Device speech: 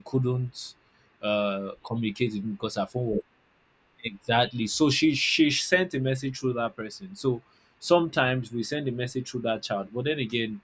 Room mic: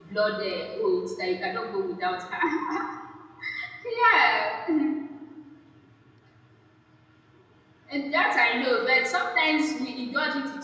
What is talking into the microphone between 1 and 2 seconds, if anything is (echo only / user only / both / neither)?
user only